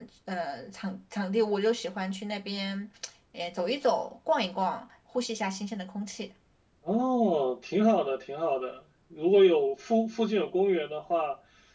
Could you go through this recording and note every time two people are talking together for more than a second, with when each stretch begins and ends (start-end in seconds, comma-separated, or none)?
none